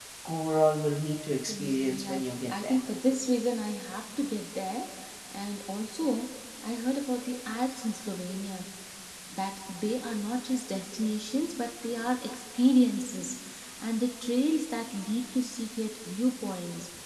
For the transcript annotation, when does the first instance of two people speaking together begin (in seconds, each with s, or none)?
1.4 s